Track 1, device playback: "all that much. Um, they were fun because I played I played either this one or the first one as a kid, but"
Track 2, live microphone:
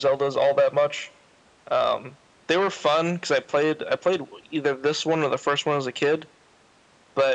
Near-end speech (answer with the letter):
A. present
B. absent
B